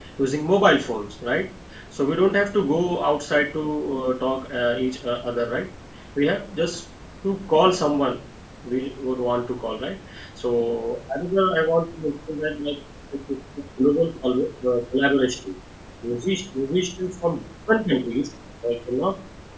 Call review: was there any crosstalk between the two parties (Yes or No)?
No